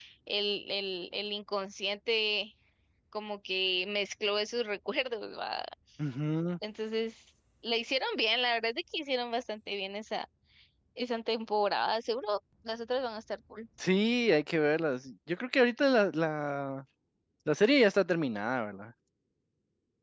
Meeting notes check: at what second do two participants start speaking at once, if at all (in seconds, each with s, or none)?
none